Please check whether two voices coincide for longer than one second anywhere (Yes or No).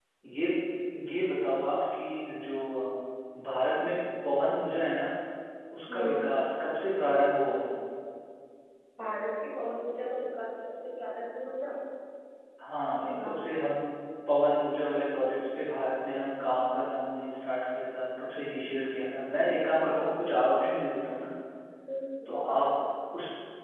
No